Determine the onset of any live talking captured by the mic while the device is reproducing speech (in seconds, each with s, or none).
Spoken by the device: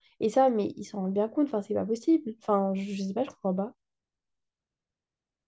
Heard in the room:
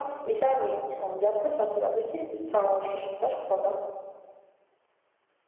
none